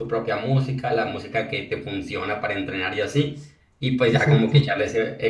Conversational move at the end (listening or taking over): listening